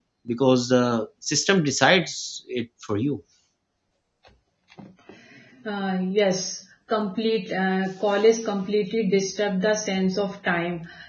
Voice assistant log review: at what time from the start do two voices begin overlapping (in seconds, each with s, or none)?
none